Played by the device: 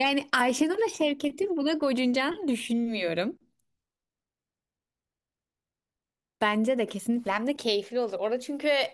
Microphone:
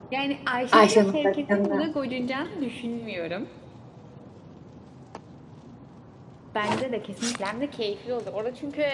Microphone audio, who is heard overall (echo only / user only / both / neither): both